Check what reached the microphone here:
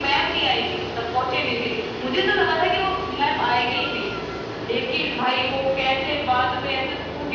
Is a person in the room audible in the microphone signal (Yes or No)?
No